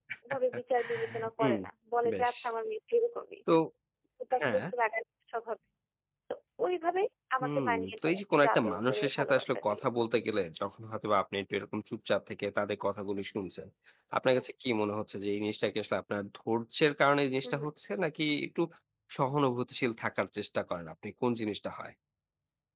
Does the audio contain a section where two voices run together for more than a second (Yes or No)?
Yes